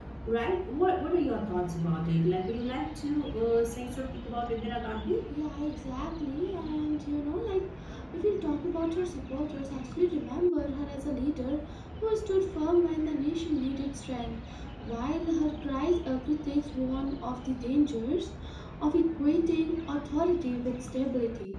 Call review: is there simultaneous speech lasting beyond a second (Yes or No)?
No